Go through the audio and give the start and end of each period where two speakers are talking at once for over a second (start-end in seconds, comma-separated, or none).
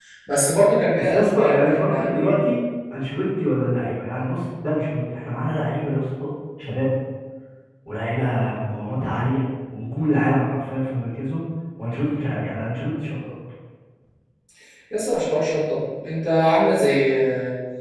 0.9-2.5